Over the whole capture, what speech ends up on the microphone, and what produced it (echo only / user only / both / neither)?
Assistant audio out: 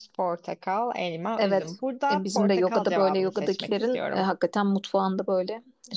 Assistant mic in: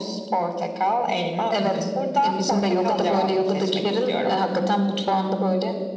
echo only